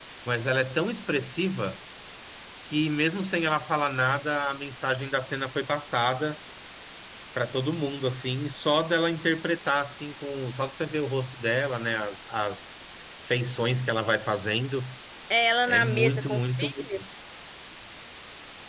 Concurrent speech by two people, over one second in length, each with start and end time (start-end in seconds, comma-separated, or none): 15.7-17.0